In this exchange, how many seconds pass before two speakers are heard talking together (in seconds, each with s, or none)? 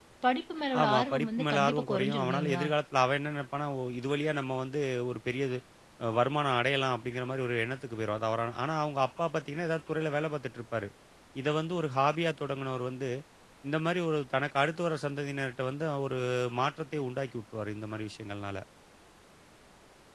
0.8 s